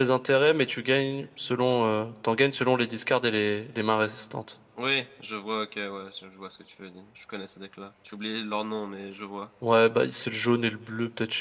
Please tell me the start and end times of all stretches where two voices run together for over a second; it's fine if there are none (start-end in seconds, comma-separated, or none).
none